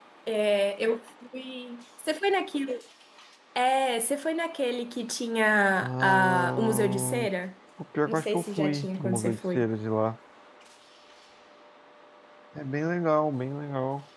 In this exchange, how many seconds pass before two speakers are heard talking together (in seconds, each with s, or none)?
5.8 s